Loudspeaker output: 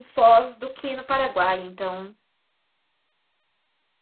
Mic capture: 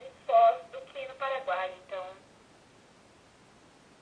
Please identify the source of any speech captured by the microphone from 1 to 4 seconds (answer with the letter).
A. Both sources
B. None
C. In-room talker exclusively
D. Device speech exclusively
D